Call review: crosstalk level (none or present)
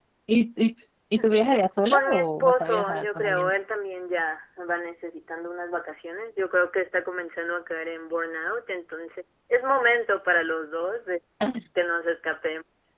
present